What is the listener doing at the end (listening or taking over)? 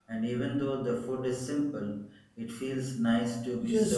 taking over